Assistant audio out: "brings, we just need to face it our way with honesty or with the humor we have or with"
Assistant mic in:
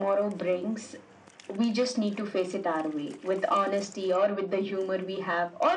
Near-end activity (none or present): none